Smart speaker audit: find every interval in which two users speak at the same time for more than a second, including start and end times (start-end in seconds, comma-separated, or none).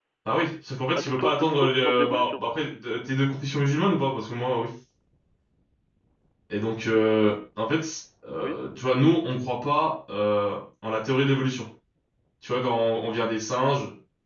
0.9-2.4